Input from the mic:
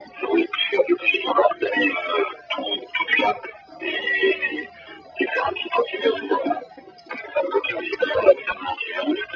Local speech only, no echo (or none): none